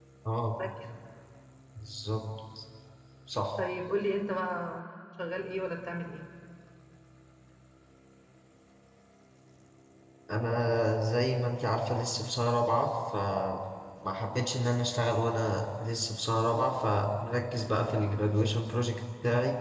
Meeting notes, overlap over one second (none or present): none